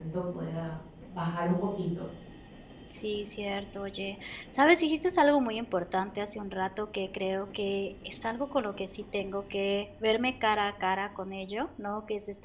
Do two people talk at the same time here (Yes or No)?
No